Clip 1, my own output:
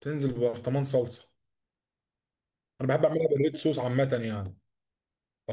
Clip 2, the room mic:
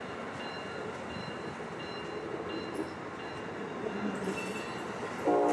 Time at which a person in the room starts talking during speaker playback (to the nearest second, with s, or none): none